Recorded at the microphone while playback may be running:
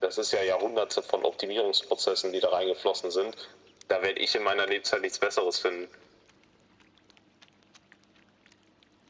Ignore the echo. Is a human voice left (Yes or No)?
No